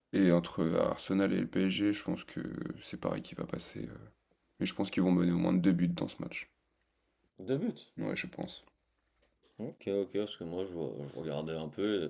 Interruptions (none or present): none